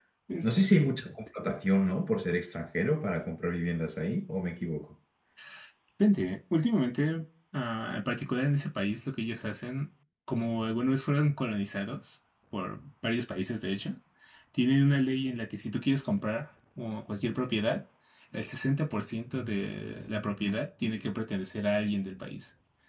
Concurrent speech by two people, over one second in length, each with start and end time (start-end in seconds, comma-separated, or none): none